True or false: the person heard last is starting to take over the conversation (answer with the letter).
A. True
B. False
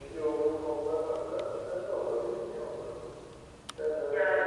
B